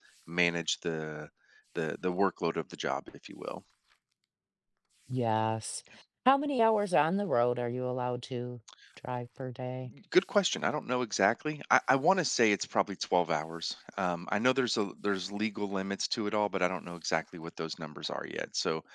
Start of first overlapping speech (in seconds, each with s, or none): none